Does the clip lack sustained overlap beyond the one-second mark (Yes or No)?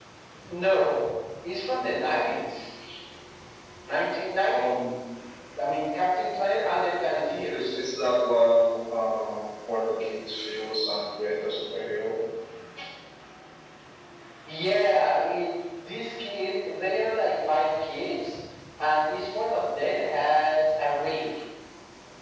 Yes